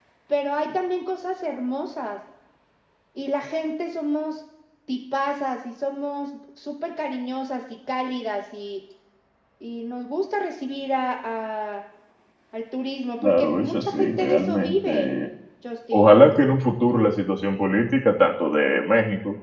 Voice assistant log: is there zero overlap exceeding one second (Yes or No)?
No